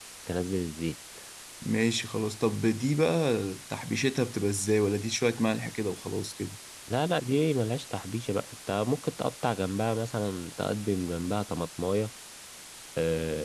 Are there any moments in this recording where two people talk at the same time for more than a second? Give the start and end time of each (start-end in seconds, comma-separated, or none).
none